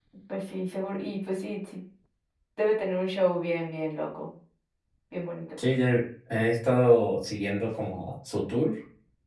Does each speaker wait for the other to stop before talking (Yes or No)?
Yes